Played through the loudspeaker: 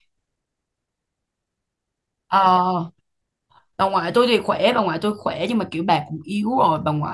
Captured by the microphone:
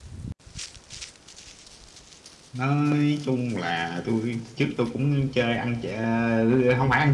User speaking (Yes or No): Yes